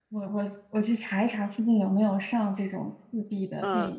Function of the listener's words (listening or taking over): taking over